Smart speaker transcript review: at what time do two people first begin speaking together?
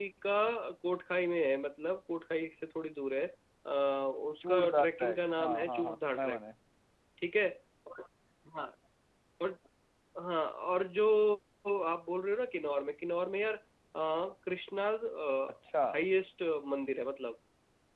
4.5 s

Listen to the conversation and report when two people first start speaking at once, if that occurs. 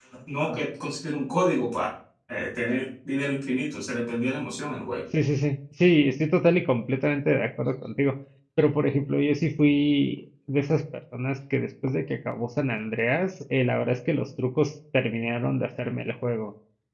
none

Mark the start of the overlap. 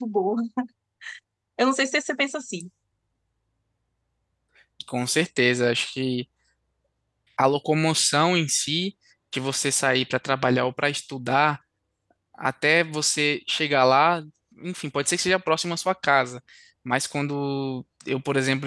none

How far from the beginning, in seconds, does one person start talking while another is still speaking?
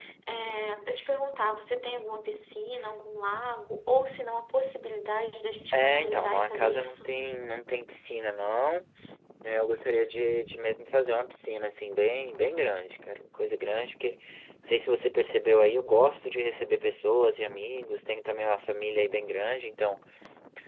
5.7 s

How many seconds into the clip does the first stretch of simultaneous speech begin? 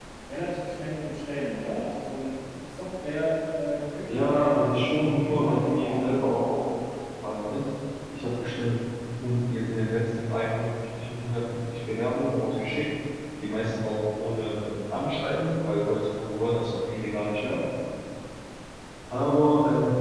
4.1 s

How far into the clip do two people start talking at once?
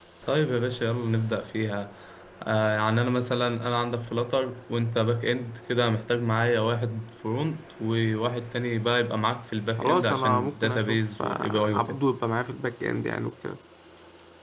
9.8 s

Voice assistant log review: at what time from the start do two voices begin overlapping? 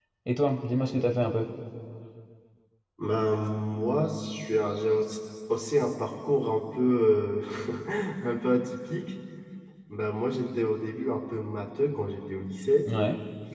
none

